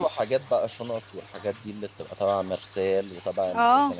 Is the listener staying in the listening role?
Yes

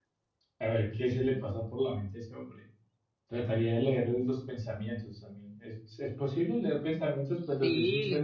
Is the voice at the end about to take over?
Yes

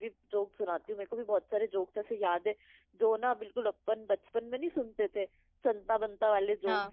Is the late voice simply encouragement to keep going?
Yes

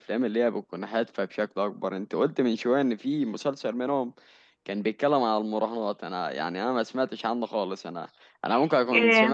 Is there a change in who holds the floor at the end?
No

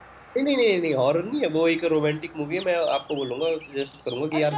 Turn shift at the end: Yes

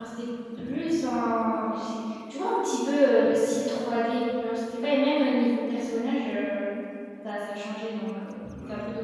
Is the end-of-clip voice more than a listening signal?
Yes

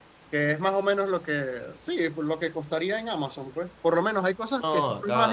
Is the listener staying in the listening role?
Yes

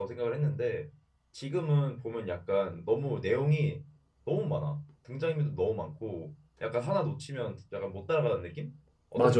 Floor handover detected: Yes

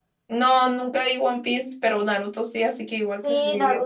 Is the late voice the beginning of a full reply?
Yes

